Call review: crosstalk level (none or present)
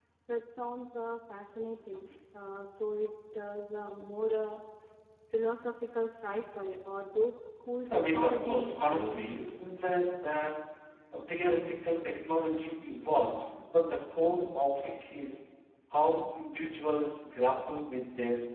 present